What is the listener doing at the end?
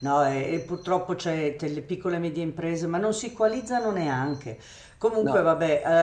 listening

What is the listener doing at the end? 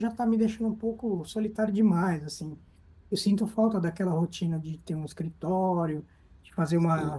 listening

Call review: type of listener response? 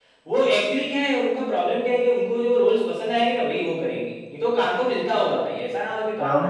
taking over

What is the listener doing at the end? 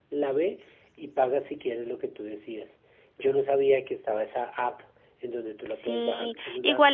taking over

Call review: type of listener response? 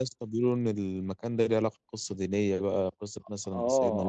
taking over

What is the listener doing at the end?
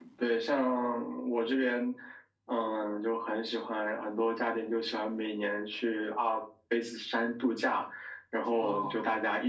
listening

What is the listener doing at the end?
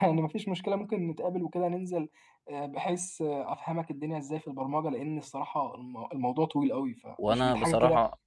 taking over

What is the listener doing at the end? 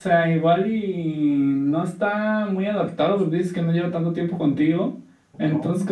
listening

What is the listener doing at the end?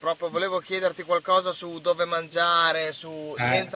listening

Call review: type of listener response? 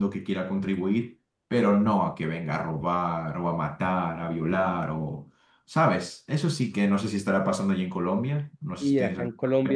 taking over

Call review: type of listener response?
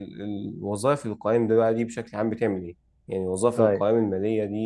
listening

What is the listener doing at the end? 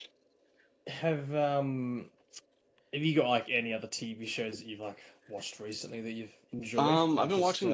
taking over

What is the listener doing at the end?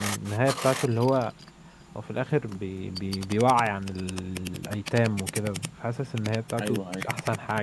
listening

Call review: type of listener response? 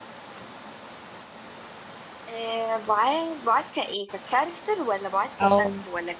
taking over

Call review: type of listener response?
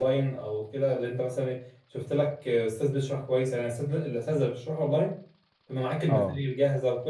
listening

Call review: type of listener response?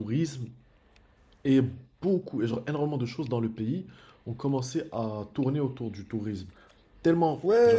taking over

